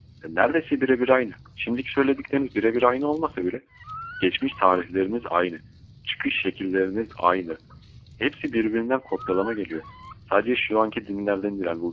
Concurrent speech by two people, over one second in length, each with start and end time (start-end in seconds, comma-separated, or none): none